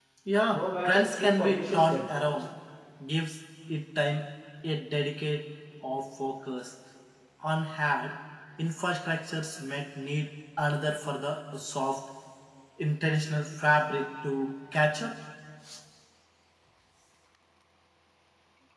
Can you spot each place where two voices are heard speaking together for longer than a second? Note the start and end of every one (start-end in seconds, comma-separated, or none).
0.5-2.1